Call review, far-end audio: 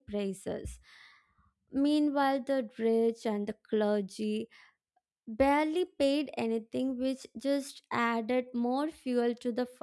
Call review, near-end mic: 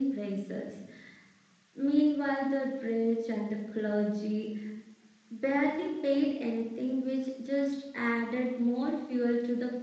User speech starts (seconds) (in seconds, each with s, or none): none